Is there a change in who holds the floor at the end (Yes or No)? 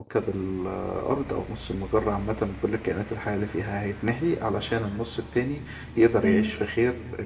No